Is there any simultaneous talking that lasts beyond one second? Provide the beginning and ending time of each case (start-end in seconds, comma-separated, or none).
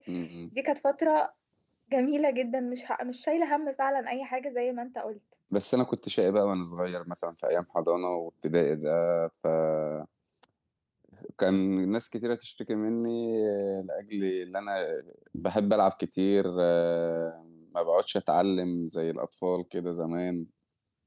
none